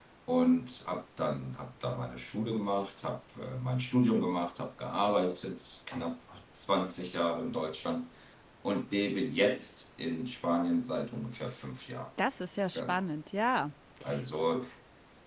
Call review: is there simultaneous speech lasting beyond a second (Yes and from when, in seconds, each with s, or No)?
No